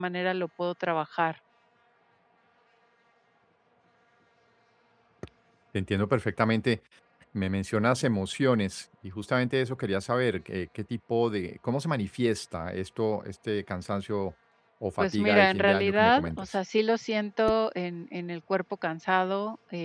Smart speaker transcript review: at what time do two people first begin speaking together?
15.0 s

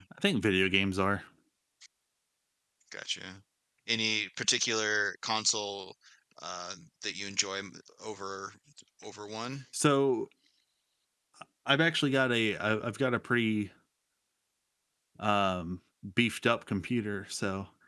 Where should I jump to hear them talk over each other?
none

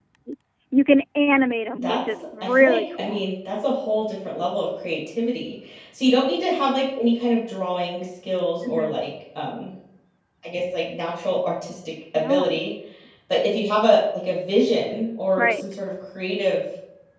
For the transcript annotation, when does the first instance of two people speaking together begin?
1.8 s

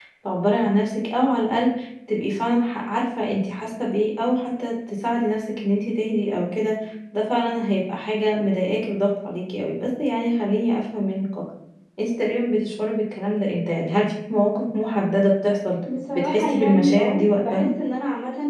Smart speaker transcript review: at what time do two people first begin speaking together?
16.2 s

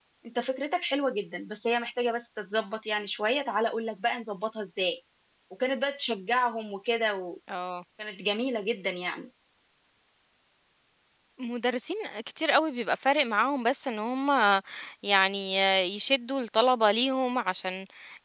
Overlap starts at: none

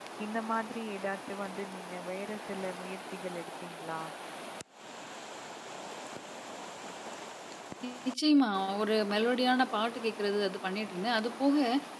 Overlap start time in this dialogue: none

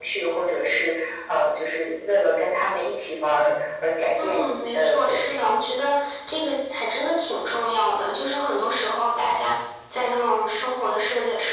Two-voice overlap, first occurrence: 4.2 s

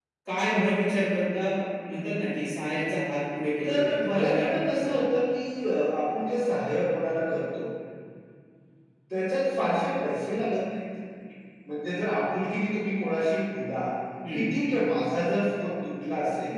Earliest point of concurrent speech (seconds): 3.6 s

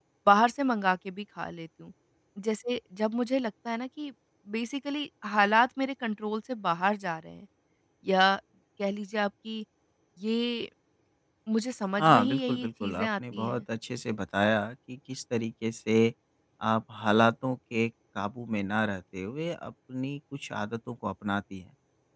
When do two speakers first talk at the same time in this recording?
12.0 s

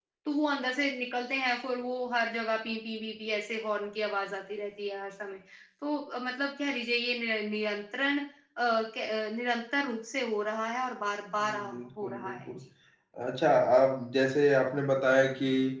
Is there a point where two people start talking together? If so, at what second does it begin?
11.4 s

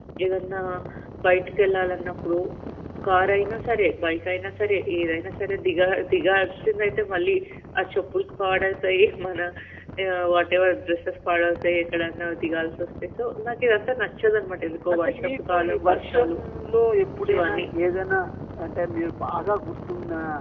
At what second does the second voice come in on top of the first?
14.9 s

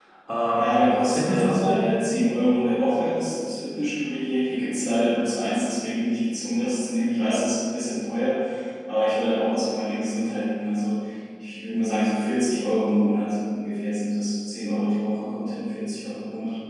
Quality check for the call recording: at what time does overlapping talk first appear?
0.6 s

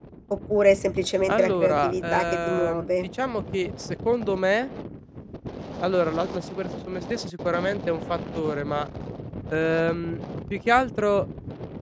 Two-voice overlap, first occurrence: 1.3 s

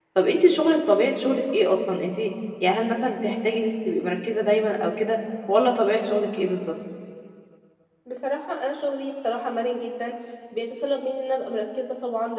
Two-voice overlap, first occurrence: none

